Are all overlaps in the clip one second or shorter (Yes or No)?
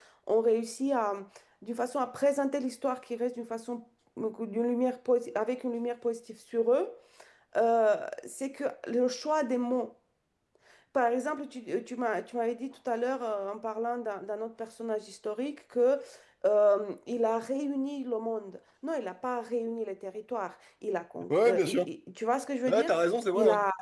Yes